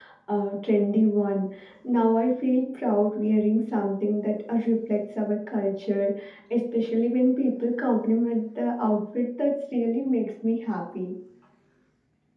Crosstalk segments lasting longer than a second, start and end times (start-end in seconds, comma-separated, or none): none